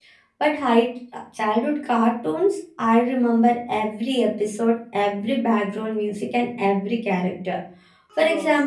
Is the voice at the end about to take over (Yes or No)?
No